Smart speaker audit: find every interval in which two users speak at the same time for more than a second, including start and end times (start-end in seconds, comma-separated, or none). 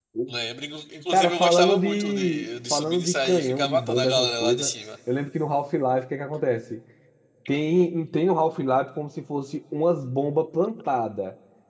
1.1-4.7